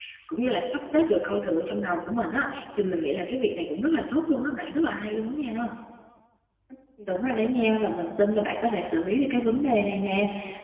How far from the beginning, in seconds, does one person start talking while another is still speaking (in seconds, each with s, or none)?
none